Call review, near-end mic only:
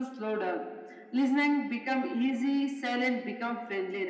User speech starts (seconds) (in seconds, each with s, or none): none